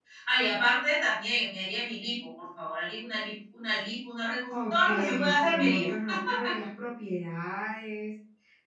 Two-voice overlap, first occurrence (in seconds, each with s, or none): 4.5 s